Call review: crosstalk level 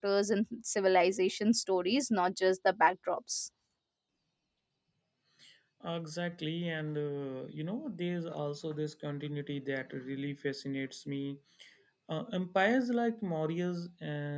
none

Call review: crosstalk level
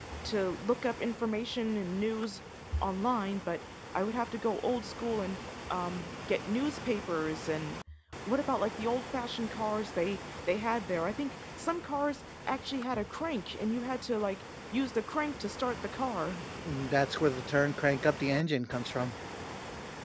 none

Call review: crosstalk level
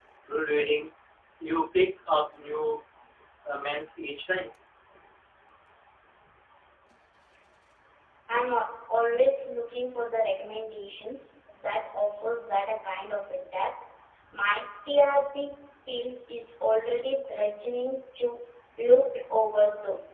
none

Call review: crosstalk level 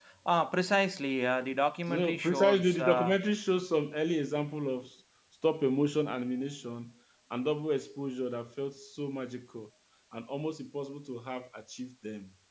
present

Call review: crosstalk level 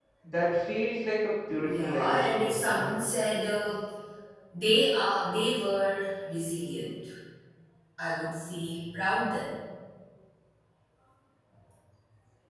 present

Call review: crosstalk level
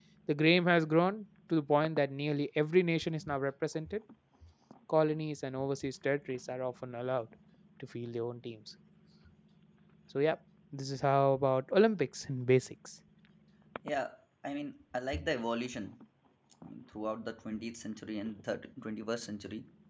none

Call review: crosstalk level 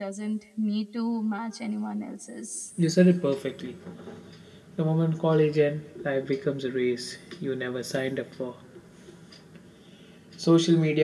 none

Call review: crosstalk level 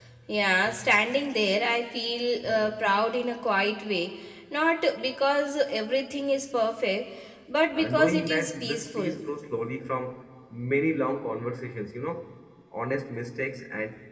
present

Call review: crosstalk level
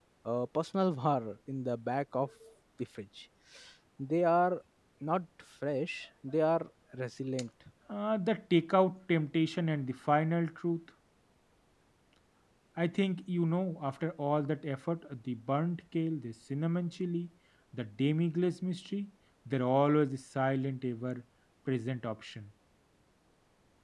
none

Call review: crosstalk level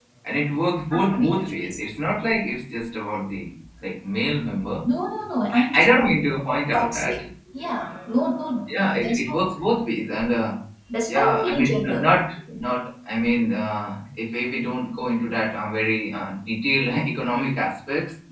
present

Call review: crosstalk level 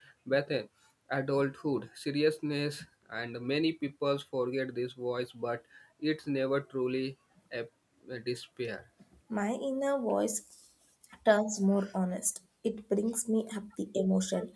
none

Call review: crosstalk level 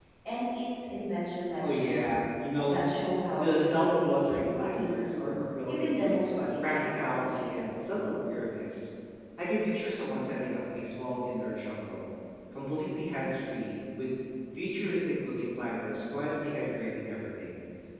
present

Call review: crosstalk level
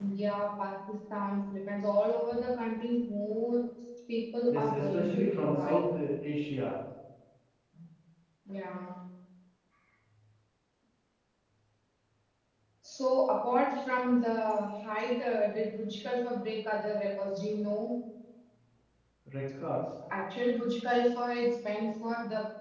present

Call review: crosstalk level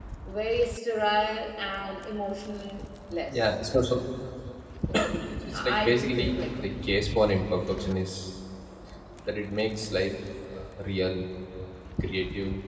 present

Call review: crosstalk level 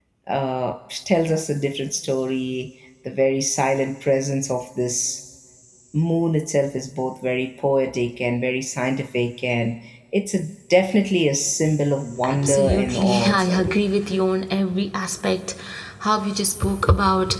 present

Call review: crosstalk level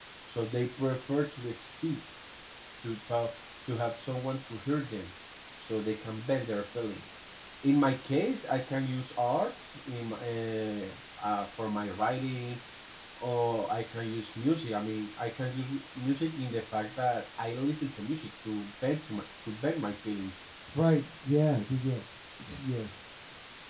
none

